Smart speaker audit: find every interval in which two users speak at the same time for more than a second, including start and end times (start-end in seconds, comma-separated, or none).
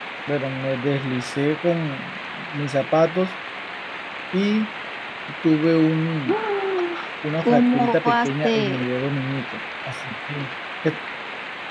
7.4-8.9